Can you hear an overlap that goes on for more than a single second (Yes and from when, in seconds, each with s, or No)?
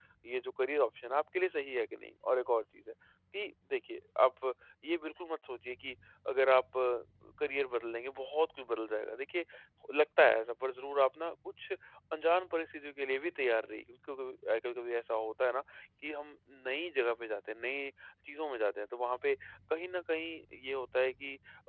No